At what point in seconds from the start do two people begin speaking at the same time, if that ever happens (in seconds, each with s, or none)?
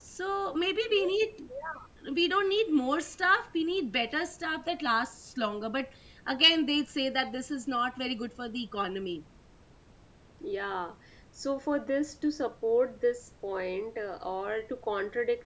none